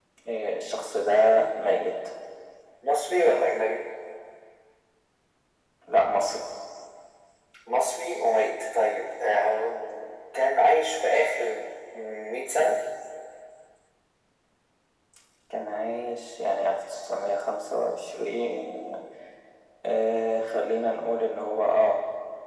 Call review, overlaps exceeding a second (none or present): none